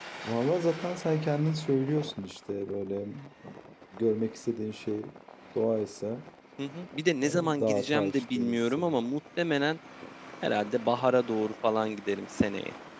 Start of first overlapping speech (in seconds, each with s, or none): 7.2 s